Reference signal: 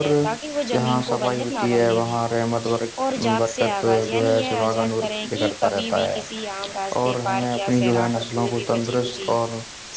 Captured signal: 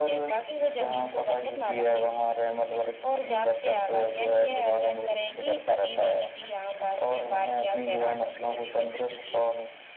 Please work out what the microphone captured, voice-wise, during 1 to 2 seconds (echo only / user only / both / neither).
echo only